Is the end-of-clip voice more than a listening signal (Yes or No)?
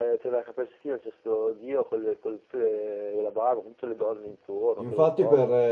Yes